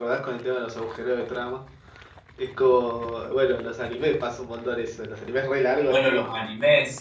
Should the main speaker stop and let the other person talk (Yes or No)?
Yes